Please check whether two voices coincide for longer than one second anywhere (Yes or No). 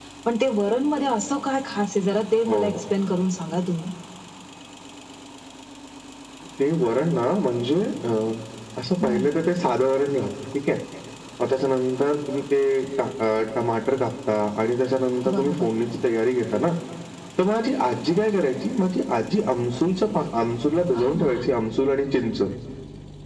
No